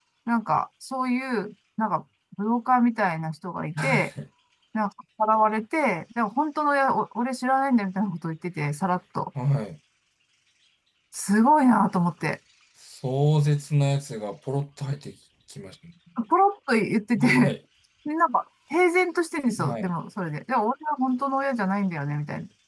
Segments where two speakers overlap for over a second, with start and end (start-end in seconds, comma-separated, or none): none